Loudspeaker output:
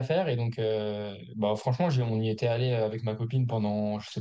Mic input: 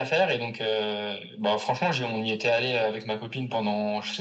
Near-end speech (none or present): none